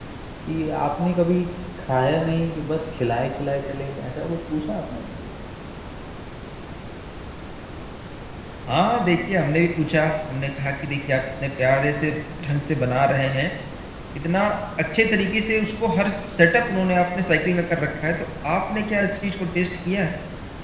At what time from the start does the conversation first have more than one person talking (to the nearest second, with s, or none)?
none